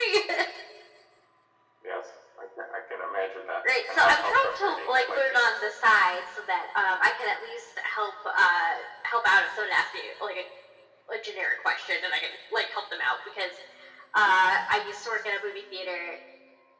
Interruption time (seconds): 3.9 s

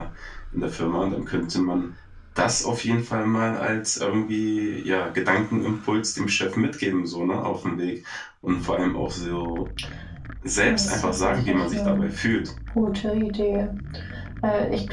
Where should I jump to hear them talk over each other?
10.7 s

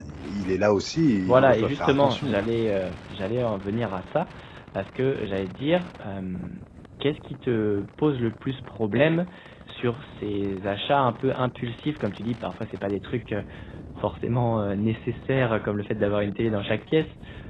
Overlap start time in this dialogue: 1.2 s

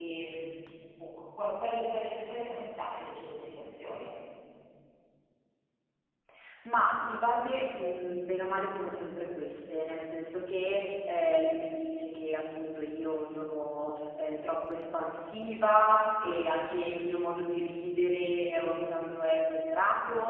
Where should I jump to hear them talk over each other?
none

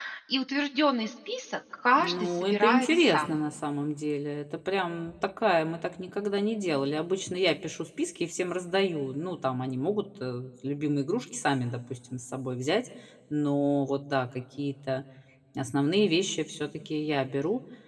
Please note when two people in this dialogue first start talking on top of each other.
1.9 s

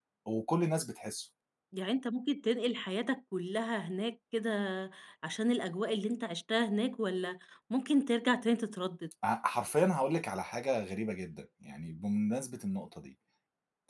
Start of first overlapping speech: none

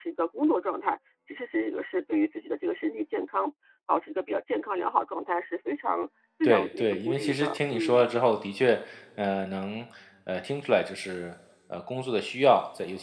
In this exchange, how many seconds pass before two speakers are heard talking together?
6.4 s

